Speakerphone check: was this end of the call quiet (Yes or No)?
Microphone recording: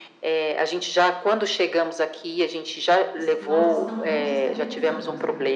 No